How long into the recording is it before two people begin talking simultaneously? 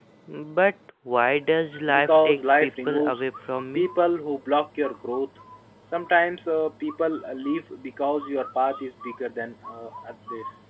2 s

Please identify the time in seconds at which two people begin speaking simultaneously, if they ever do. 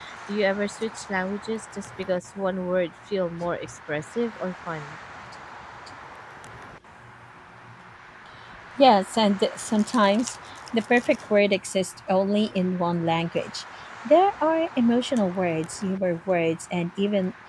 none

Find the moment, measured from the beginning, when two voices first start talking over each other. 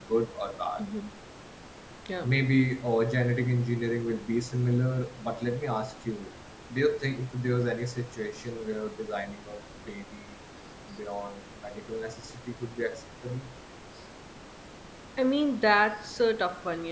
none

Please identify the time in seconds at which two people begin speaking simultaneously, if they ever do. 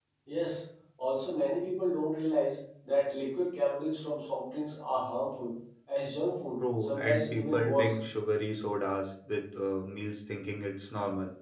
7 s

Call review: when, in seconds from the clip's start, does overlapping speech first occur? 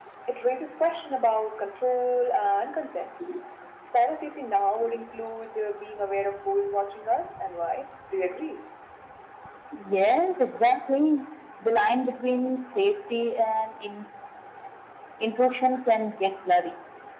none

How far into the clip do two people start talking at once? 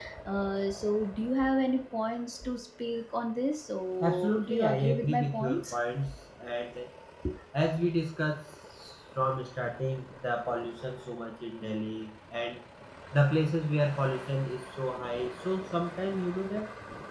4 s

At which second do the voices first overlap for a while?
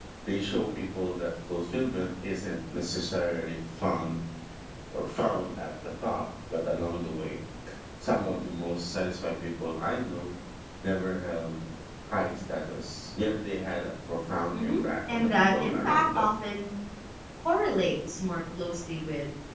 15 s

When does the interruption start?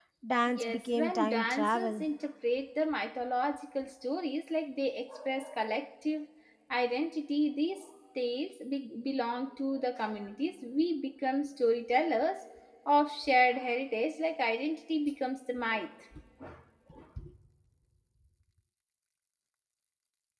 1 s

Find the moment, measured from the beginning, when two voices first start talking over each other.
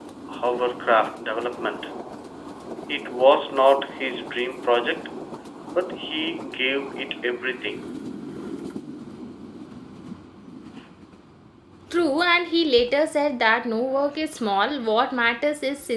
none

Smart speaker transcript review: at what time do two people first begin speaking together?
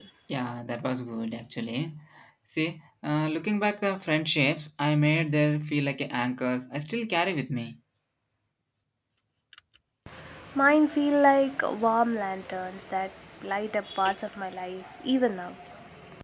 none

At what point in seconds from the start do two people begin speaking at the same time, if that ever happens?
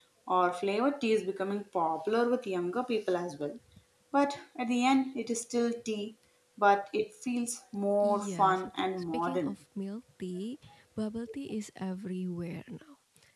8 s

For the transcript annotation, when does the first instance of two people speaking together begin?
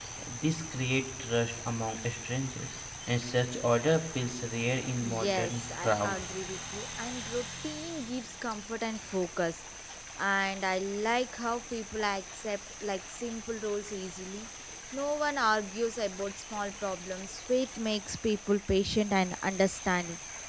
5 s

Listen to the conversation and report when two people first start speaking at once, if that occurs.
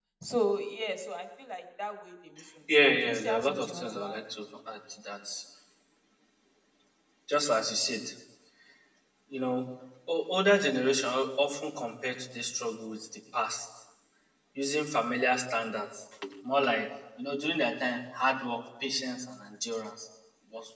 3 s

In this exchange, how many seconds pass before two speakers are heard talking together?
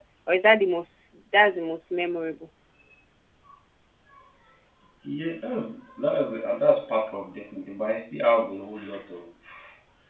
none

